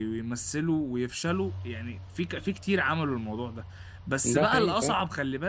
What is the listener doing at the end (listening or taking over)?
listening